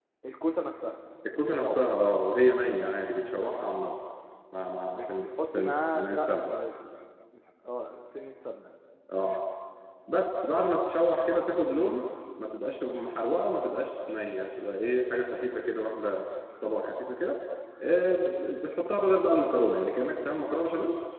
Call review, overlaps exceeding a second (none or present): present